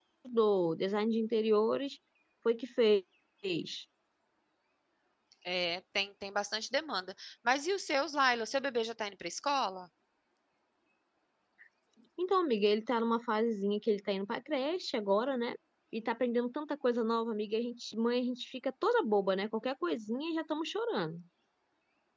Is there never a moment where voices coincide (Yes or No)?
Yes